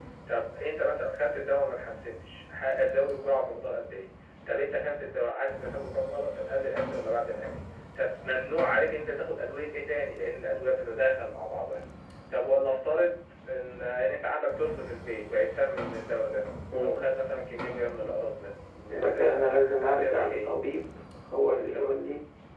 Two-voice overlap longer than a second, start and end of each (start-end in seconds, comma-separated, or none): 18.9-20.5